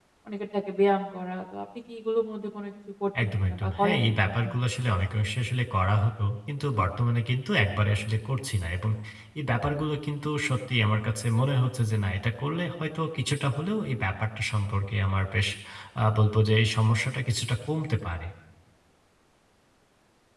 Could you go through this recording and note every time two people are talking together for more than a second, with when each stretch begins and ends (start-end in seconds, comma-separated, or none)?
3.2-4.5